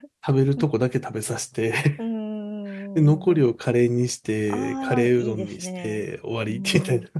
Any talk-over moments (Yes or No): Yes